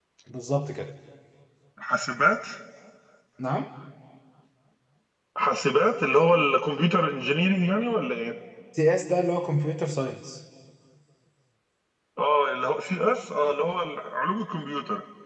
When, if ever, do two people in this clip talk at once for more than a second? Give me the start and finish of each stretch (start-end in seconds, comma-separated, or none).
none